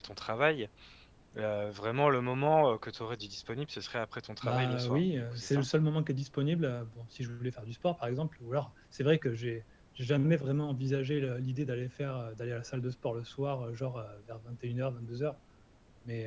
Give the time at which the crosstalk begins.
4.4 s

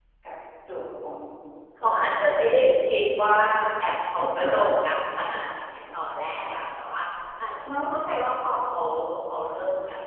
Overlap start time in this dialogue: 1.8 s

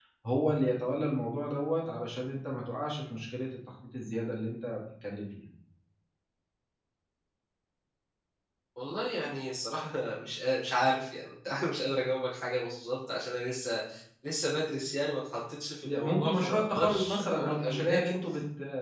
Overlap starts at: 15.8 s

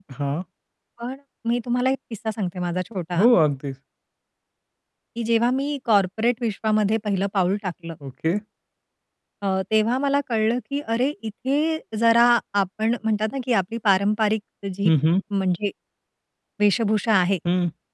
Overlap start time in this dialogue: none

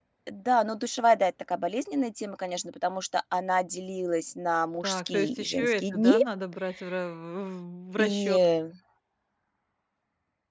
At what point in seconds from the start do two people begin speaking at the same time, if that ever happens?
4.8 s

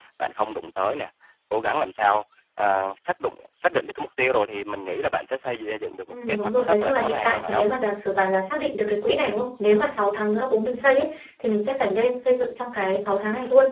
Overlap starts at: 6.1 s

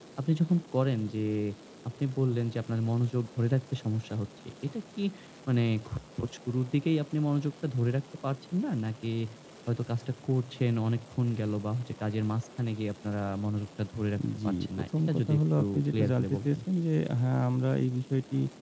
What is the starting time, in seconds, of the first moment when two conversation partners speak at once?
14.4 s

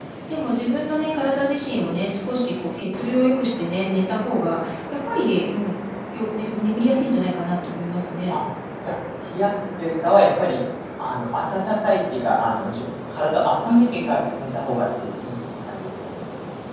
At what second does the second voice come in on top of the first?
none

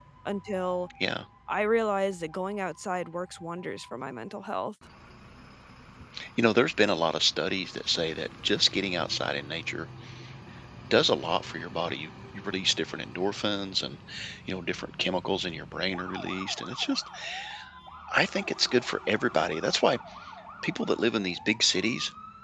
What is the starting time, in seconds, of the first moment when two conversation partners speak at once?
none

